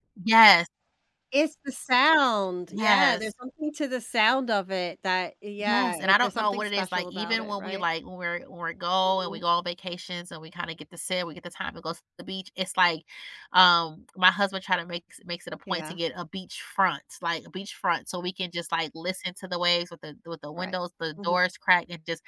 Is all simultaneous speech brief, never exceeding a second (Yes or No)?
No